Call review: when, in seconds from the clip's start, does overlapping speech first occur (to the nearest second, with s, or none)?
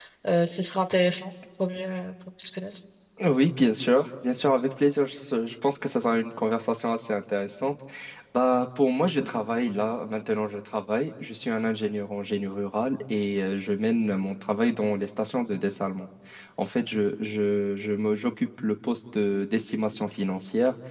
none